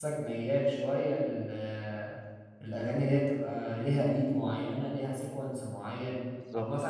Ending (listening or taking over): listening